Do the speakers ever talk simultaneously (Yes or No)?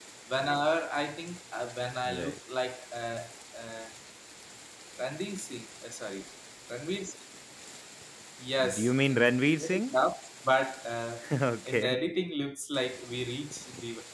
Yes